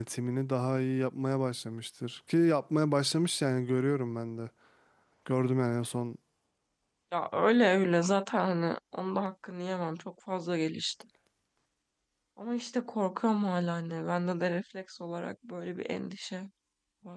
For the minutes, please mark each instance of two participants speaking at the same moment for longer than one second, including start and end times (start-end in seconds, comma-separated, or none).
none